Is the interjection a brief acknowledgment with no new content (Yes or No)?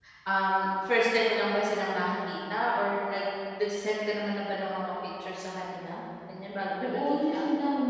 No